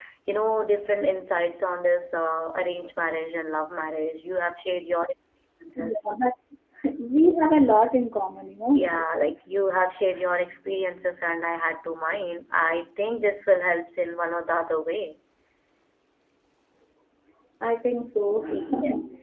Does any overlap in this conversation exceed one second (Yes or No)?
No